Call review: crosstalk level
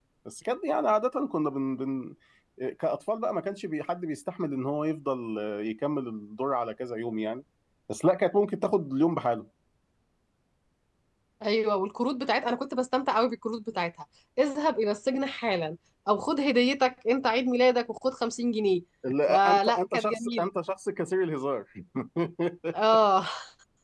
present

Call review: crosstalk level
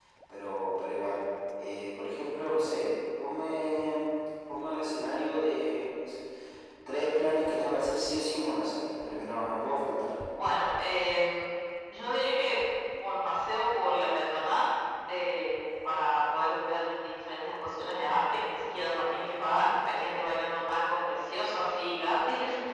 none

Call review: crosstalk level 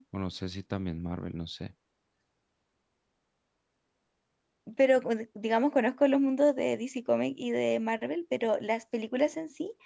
none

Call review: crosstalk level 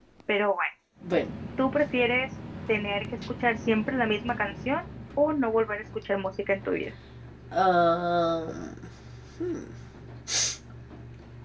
none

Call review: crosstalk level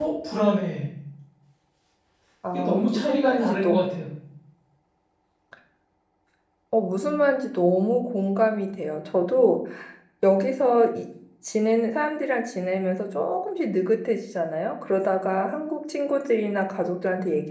present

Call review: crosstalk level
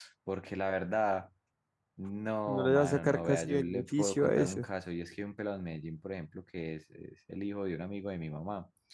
present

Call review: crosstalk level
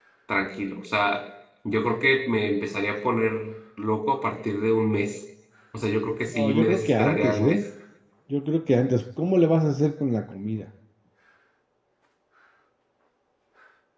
present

